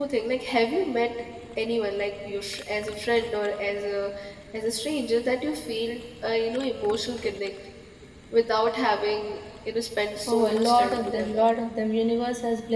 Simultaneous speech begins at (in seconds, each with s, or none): 10.3 s